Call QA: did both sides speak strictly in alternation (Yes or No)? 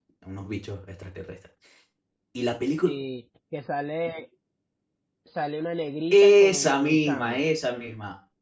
No